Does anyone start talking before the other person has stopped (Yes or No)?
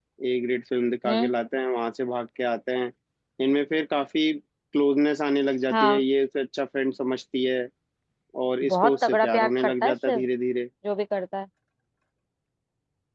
Yes